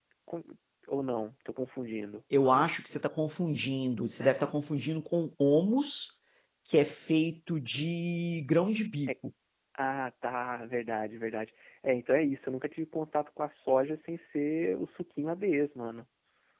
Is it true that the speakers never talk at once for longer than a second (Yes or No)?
Yes